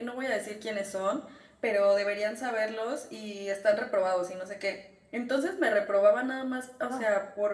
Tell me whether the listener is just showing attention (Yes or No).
Yes